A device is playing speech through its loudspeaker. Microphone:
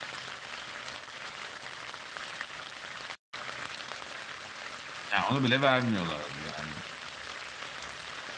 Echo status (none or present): none